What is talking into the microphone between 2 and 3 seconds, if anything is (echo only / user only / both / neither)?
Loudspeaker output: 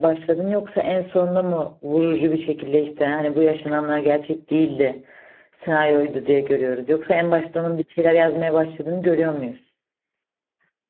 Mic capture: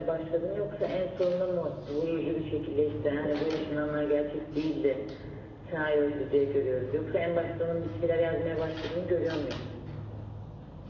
echo only